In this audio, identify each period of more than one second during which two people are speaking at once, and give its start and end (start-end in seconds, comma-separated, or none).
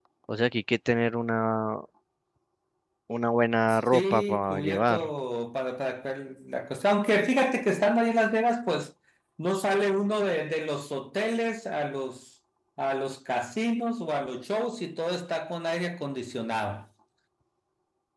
3.7-5.1